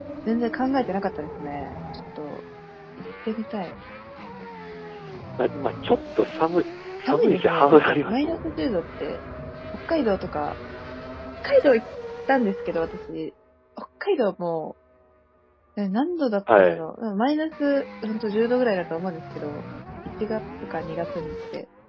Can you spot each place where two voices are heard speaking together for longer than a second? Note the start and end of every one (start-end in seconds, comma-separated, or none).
7.0-8.6